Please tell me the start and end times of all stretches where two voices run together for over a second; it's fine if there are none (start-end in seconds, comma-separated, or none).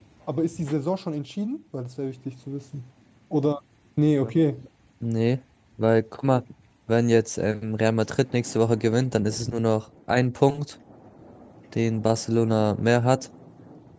none